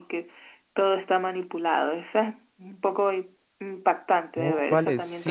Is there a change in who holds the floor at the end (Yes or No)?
Yes